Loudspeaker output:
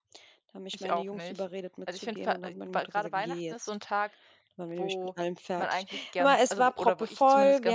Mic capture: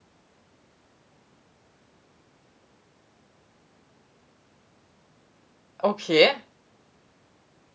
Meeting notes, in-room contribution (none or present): present